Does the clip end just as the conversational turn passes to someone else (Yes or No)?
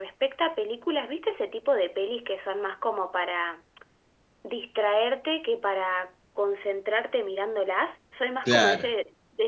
No